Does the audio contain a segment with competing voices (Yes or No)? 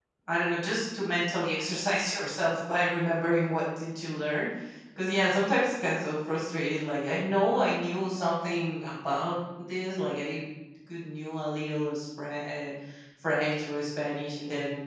No